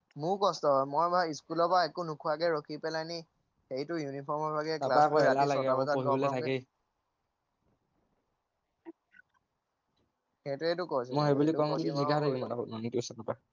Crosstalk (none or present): present